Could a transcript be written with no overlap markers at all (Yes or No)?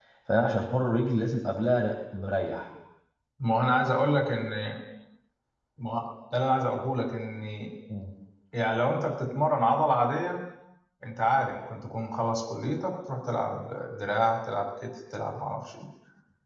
Yes